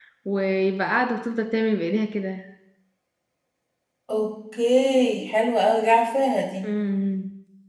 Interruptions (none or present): none